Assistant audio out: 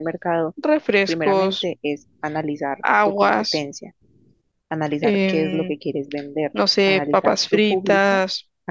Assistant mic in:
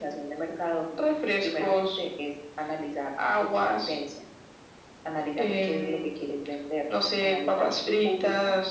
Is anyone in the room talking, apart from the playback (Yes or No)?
No